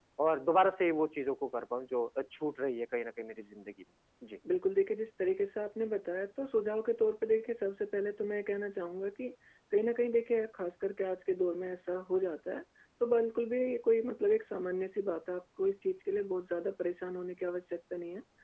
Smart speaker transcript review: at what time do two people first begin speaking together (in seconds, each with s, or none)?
none